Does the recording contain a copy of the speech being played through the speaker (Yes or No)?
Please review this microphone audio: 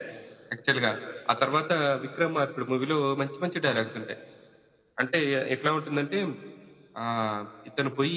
Yes